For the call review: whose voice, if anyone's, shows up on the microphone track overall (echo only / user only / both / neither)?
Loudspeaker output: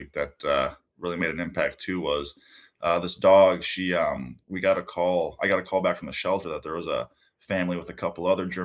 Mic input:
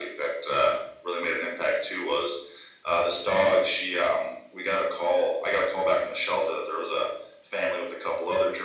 echo only